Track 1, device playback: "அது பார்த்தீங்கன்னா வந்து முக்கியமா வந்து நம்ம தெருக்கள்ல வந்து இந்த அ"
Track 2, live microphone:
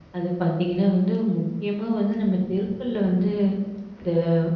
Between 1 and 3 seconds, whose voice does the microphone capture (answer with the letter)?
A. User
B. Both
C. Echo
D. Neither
C